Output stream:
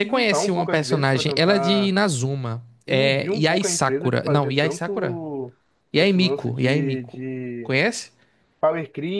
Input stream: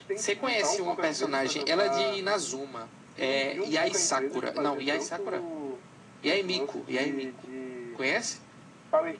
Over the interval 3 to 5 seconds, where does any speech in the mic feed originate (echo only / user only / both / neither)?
echo only